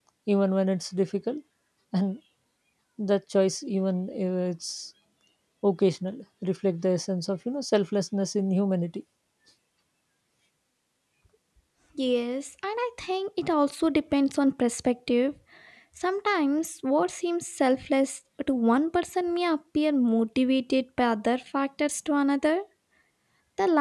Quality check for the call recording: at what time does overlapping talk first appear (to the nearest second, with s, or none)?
none